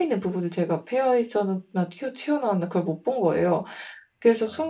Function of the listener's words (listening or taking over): listening